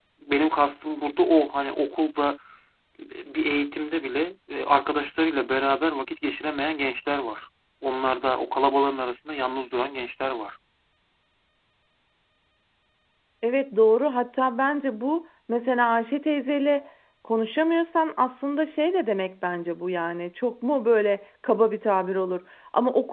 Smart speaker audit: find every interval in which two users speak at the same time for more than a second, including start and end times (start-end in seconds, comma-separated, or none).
none